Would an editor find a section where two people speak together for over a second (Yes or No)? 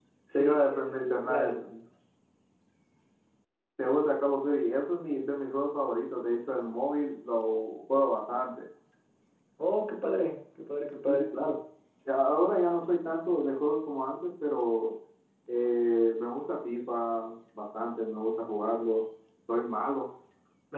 Yes